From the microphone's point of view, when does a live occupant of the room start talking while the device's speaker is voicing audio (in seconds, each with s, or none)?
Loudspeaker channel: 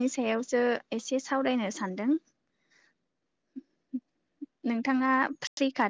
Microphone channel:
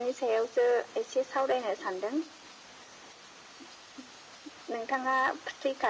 none